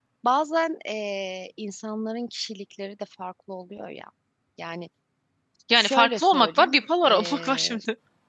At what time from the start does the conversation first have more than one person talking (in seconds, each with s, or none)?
5.8 s